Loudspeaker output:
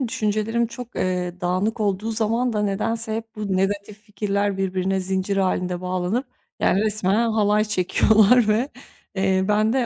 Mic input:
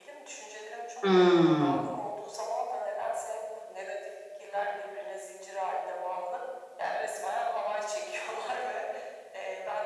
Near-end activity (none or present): present